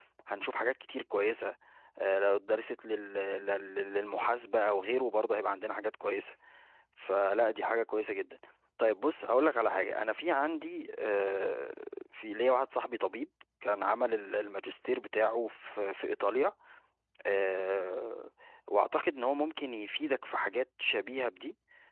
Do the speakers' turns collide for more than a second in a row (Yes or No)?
No